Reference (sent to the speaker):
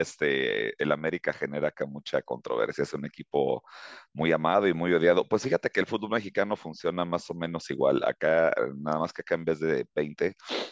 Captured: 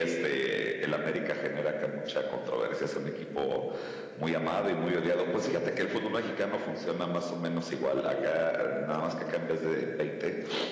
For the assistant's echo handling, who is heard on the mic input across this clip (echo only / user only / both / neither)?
echo only